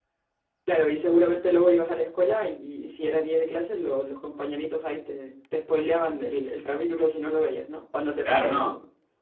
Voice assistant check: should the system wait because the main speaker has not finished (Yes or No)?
No